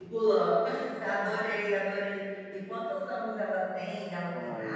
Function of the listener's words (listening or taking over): taking over